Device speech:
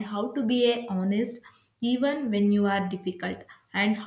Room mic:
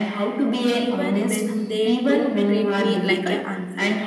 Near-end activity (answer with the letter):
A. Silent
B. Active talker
B